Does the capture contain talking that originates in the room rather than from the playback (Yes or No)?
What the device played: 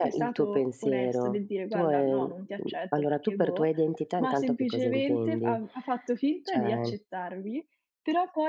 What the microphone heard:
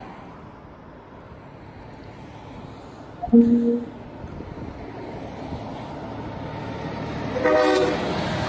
Yes